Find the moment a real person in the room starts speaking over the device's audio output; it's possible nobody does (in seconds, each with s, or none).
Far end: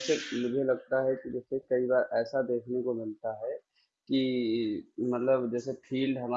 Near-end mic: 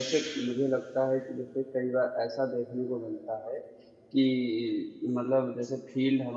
none